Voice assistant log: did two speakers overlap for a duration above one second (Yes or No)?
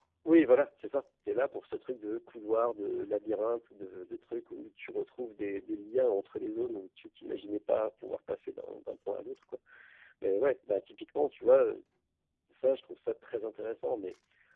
No